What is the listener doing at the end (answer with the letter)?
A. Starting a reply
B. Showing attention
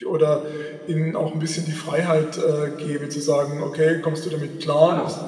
B